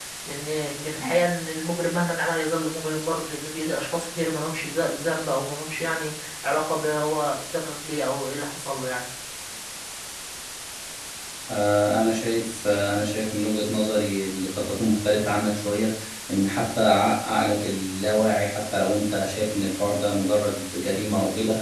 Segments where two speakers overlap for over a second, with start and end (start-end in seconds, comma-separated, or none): none